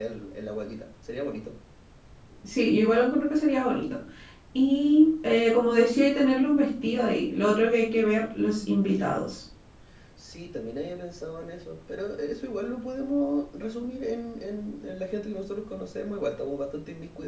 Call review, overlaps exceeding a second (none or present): none